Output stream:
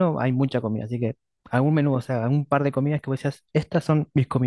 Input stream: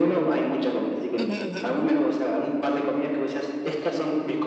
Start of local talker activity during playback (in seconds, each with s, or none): 1.2 s